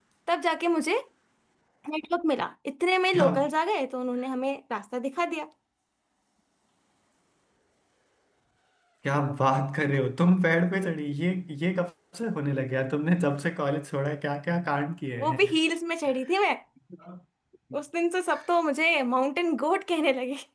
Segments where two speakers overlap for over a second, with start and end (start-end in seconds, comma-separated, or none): none